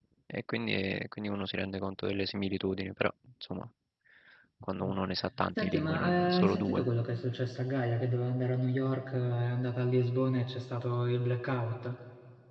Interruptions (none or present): present